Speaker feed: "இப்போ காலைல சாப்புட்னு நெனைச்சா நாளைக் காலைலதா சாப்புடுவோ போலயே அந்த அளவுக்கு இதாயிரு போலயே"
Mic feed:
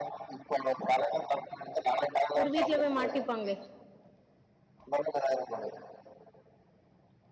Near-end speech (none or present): present